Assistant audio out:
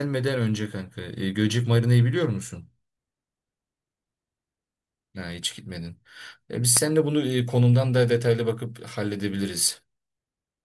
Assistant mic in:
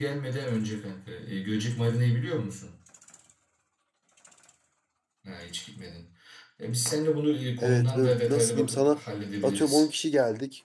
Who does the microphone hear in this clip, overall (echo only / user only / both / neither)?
both